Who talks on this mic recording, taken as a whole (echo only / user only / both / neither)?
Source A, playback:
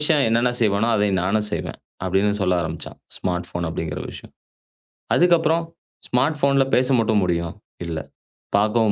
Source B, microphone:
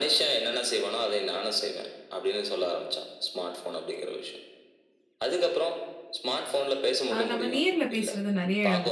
both